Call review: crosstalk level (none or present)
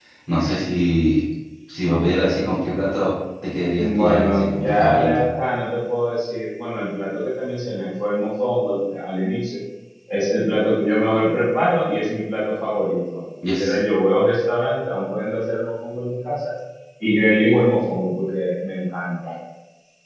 present